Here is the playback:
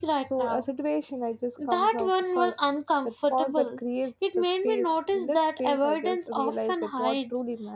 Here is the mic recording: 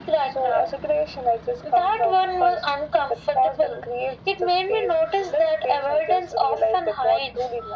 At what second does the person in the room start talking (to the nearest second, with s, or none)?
none